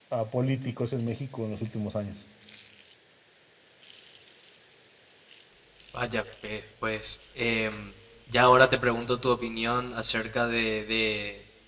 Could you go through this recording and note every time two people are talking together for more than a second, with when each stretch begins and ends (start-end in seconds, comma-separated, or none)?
none